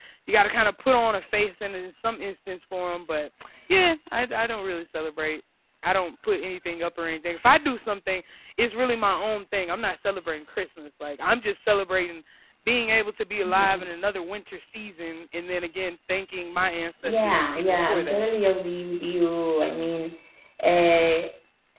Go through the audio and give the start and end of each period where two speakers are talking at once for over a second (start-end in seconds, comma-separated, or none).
17.0-18.2